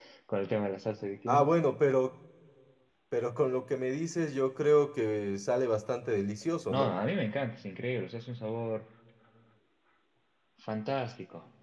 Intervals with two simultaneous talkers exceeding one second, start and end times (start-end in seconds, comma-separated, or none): none